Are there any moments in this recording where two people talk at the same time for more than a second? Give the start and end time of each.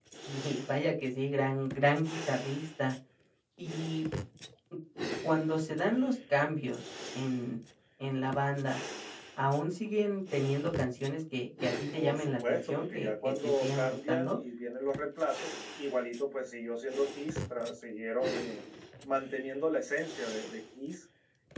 11.9-14.4

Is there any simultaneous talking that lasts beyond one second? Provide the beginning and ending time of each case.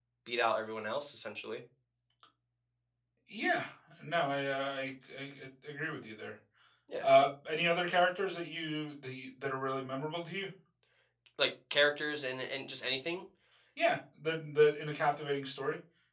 none

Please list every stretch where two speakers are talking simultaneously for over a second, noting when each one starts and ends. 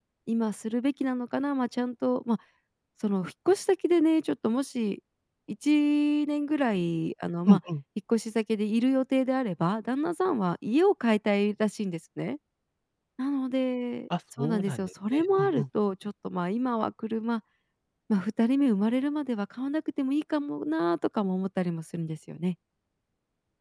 14.4-15.6

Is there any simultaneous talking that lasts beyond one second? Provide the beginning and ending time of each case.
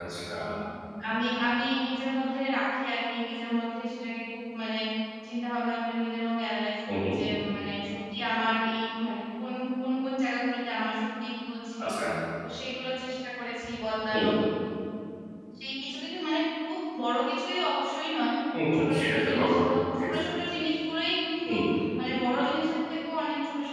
18.8-20.1

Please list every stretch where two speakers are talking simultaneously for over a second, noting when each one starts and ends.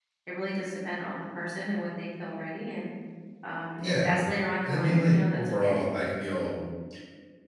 4.6-5.8

